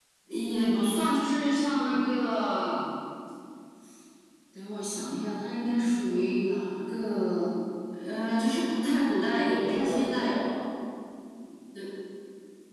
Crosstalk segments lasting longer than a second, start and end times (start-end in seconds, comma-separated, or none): 9.0-10.3